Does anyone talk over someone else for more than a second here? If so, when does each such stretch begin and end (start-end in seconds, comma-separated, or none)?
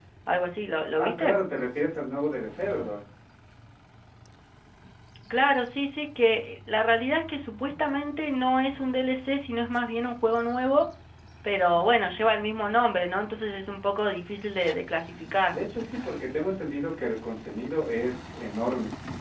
none